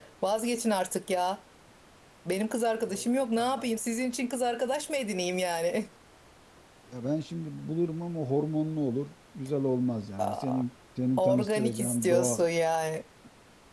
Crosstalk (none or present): present